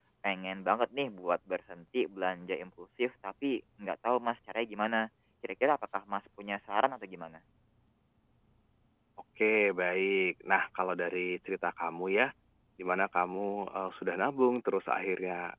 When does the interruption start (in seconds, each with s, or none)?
none